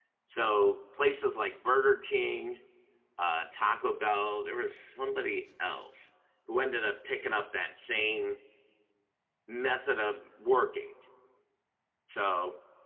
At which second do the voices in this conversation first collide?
none

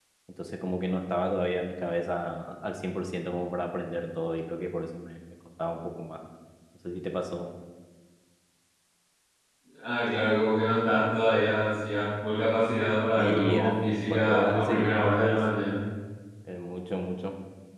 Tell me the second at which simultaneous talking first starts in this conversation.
13.2 s

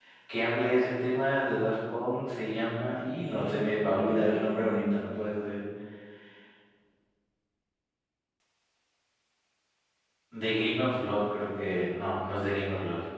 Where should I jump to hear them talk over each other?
3.2 s

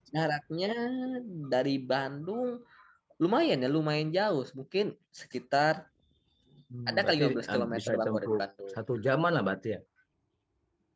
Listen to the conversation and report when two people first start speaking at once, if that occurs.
6.9 s

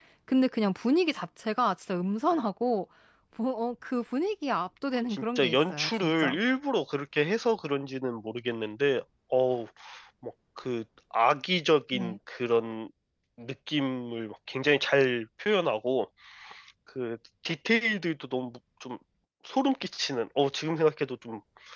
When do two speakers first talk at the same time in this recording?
5.1 s

